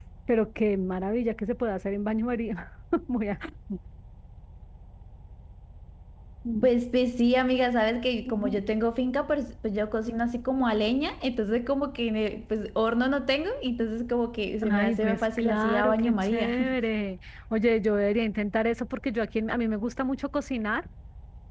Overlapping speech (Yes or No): Yes